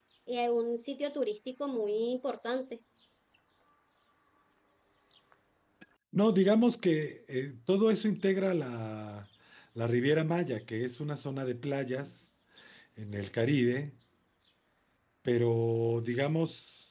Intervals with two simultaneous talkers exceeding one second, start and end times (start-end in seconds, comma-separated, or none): none